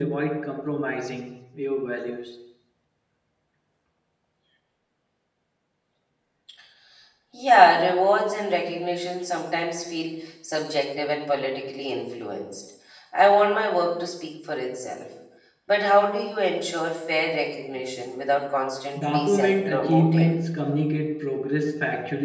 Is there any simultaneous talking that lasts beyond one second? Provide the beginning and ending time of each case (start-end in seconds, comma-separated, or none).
19.1-20.4